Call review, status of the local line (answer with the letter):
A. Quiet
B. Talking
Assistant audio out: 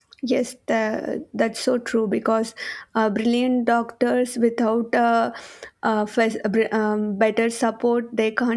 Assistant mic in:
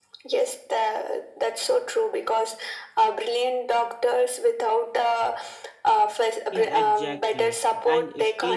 B